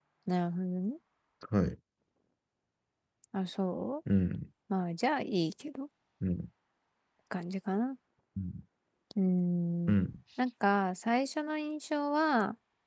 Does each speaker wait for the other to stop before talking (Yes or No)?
Yes